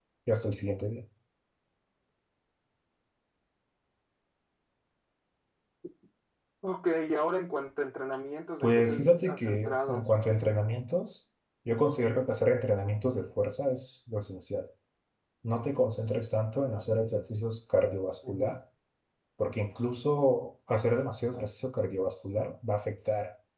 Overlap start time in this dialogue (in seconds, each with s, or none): 8.6 s